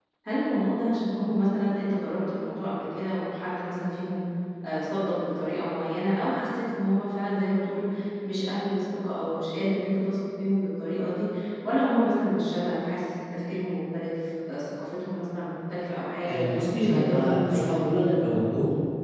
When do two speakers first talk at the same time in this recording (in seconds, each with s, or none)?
16.2 s